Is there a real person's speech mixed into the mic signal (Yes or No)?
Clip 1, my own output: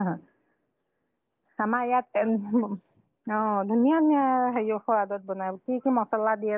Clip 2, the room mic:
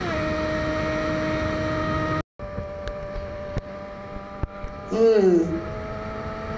Yes